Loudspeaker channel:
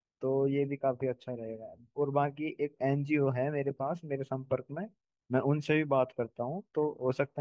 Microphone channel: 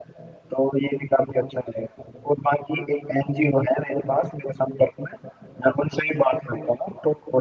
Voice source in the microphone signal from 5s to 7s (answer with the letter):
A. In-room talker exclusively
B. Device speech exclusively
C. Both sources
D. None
B